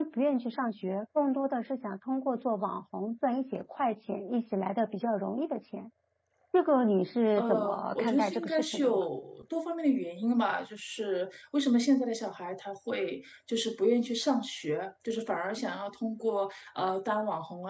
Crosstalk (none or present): present